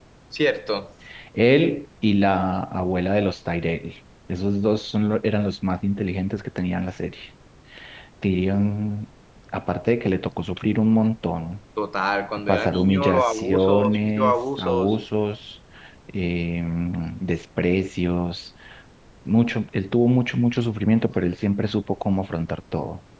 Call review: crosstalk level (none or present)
present